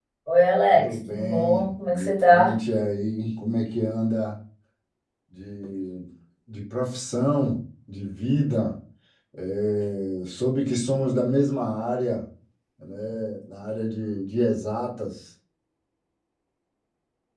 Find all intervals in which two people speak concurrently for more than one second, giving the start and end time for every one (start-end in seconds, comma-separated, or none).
0.7-2.6